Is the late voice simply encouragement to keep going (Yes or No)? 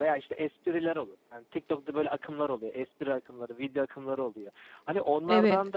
Yes